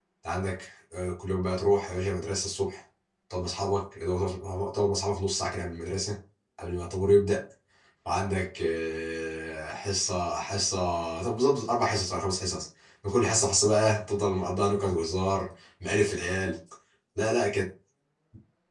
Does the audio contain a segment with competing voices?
No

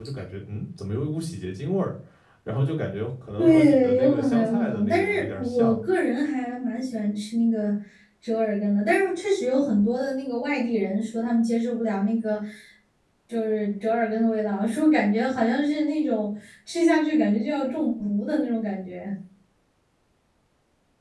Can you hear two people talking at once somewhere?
Yes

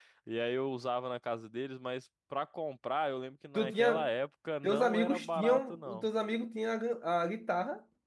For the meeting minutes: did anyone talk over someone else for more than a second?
Yes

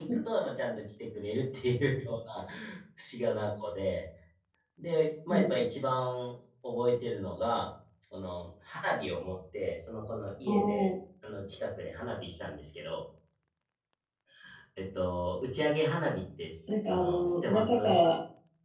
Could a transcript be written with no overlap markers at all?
No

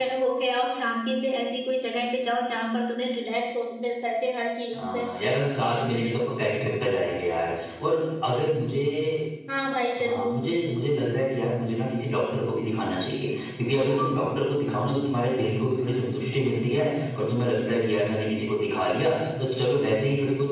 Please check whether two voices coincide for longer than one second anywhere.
No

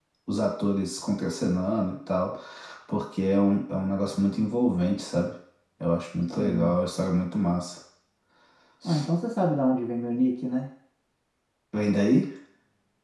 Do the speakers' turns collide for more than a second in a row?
No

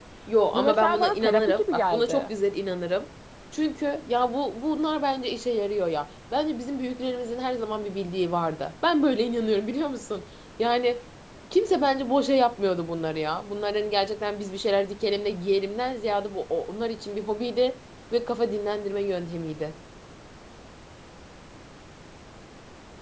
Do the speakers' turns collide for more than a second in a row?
Yes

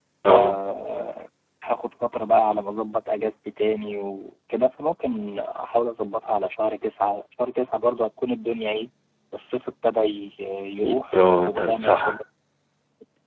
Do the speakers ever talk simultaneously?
Yes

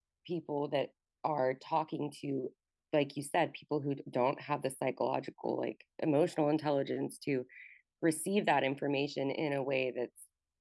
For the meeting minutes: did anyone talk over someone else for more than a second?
No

